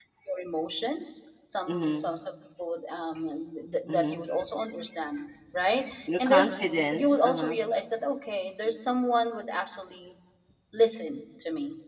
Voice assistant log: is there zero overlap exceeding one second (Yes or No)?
No